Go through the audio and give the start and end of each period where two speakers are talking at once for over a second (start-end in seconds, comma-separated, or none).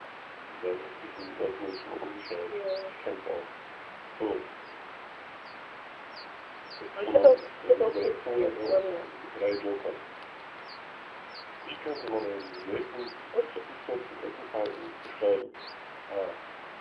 7.0-9.1